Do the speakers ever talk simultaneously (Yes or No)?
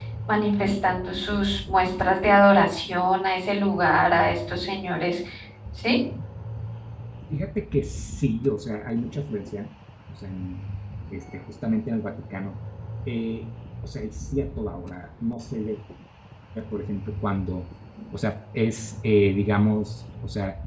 No